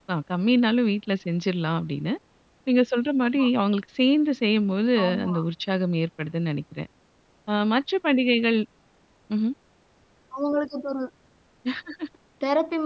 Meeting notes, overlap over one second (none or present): none